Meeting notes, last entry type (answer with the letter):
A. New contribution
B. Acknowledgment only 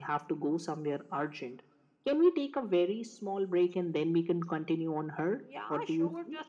A